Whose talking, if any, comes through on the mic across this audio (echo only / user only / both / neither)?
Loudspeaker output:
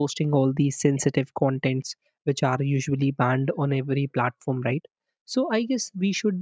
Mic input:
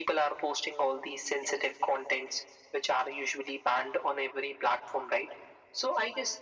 echo only